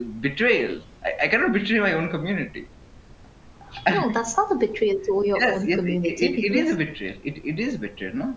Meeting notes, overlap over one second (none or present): present